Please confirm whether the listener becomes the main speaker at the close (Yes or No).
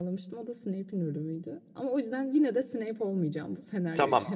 Yes